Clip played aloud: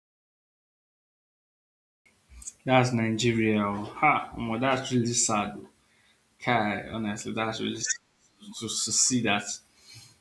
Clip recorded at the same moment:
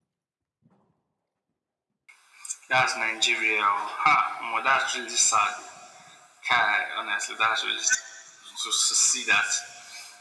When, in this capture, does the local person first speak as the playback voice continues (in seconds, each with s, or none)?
none